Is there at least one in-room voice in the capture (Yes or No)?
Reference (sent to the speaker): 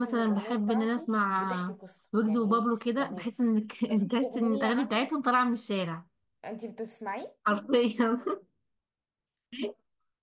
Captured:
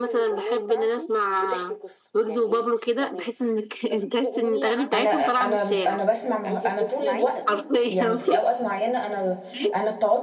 Yes